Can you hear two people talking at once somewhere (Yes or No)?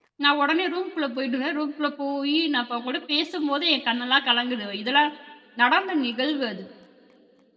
No